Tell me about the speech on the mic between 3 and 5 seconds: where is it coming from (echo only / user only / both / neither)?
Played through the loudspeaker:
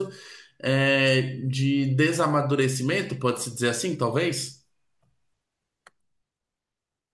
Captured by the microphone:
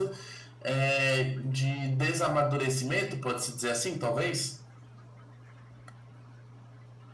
echo only